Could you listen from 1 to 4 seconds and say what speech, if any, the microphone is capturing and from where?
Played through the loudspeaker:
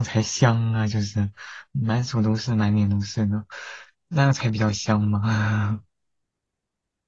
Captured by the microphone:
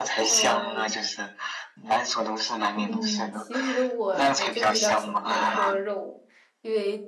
both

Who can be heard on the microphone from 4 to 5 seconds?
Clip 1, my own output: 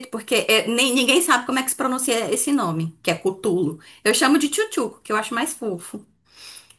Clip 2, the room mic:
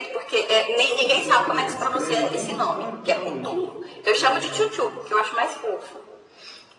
both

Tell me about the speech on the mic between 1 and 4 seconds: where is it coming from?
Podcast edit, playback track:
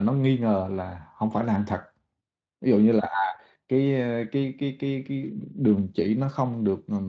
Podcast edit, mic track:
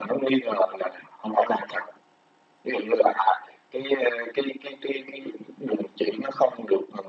echo only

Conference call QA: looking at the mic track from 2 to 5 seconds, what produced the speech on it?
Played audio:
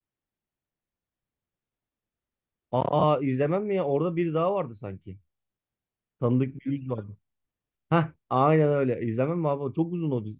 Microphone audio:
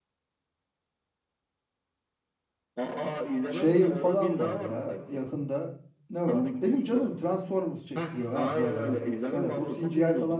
both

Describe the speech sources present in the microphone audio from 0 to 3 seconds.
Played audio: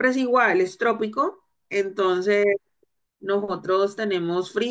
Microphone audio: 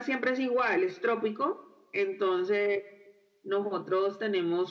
echo only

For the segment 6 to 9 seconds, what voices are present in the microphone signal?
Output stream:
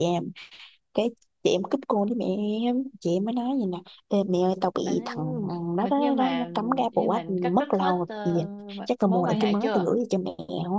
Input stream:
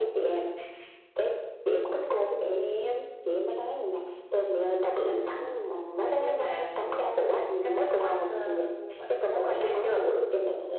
echo only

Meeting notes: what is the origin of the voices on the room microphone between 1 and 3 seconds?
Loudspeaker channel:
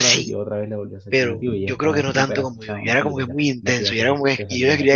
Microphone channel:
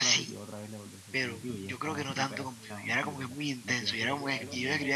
echo only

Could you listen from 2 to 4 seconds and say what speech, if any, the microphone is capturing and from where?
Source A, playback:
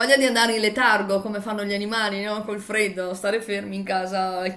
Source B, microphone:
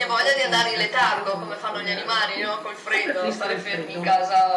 both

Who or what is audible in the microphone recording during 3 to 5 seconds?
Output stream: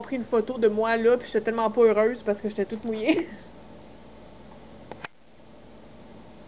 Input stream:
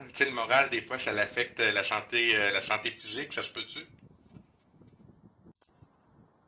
user only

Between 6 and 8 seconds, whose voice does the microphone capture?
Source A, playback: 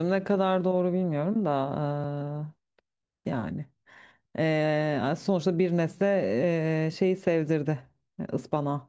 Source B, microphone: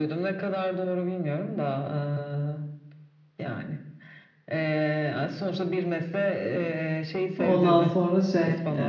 both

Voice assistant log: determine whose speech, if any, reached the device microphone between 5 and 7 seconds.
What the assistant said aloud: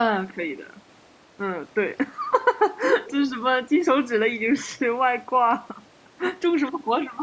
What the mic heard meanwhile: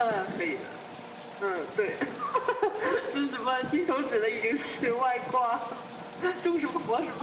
echo only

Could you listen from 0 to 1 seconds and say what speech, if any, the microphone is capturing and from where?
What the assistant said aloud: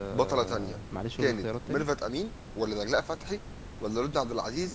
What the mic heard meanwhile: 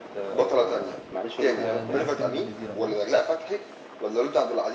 echo only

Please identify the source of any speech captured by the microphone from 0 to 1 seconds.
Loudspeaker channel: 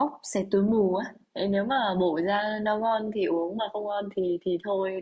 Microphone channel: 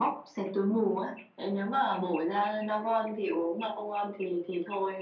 echo only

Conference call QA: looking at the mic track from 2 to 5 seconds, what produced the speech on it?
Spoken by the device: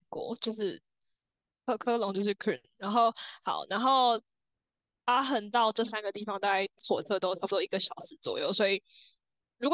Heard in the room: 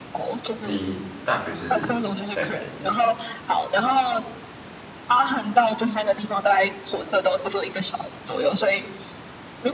both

